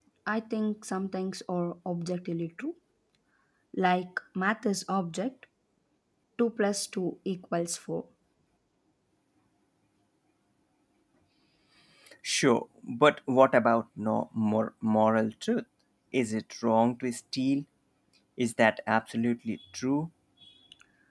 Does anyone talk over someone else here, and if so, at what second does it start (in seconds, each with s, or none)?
none